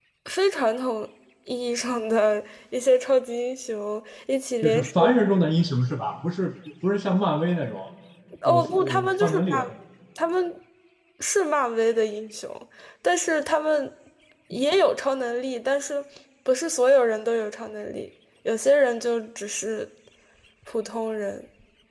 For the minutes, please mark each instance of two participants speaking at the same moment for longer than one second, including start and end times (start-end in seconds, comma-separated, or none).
8.4-9.7